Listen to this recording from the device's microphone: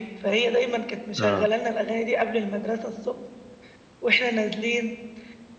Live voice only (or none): آه.